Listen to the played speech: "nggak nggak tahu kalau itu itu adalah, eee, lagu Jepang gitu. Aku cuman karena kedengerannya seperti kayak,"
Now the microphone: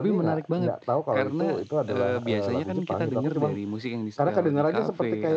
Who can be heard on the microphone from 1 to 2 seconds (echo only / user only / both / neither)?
both